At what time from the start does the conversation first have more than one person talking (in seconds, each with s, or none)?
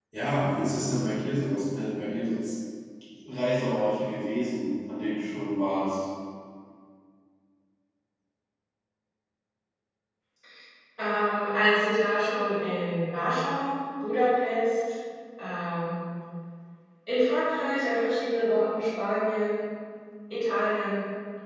none